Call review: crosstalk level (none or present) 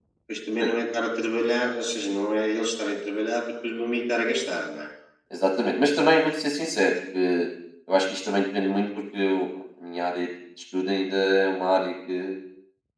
none